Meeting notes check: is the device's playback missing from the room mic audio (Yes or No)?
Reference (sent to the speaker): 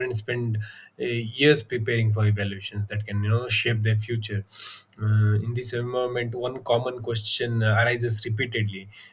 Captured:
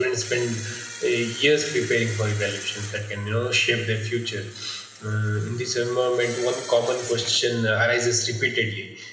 No